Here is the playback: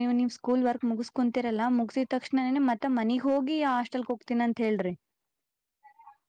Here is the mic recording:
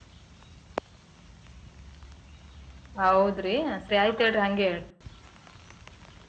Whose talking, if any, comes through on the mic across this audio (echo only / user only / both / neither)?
user only